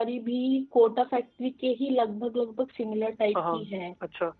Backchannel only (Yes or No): No